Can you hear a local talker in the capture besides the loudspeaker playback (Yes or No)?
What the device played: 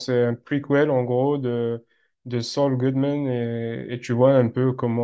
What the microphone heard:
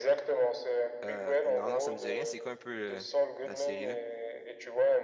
Yes